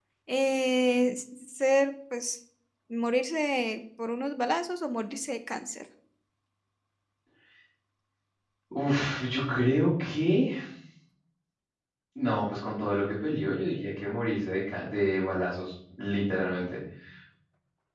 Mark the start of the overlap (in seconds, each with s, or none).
none